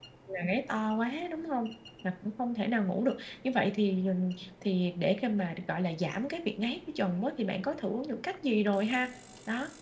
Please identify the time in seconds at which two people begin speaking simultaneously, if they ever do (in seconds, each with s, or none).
none